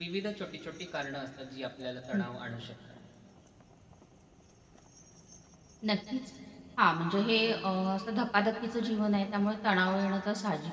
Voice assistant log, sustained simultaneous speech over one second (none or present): none